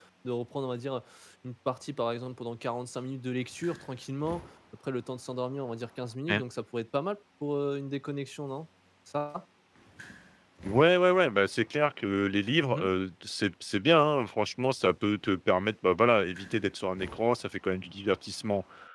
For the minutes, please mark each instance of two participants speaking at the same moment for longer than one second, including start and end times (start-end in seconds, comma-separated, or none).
none